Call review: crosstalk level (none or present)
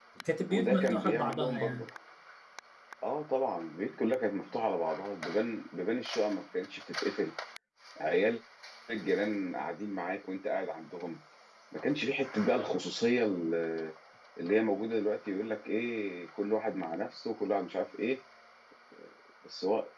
present